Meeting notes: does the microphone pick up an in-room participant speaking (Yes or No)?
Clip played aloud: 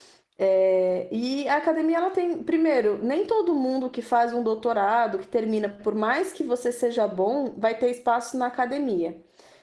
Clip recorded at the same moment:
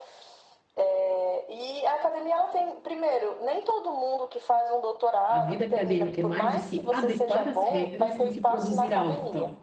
Yes